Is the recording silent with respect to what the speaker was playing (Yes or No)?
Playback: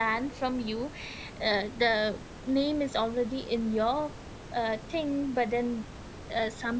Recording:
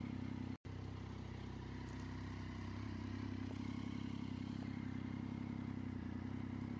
Yes